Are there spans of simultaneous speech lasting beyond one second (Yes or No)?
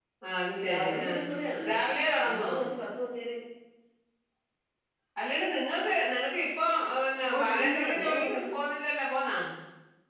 Yes